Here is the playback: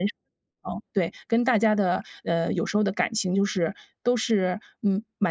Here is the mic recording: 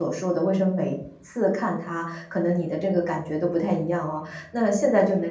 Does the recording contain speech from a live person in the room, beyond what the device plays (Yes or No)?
Yes